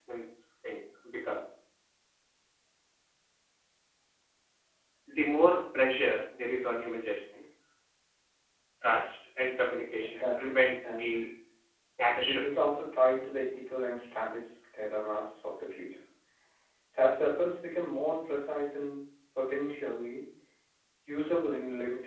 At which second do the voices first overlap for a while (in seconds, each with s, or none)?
10.0 s